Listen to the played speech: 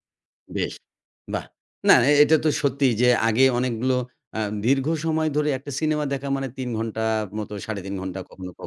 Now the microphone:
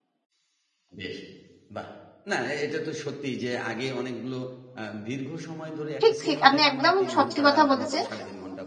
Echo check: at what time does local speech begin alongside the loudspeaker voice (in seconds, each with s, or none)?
6.0 s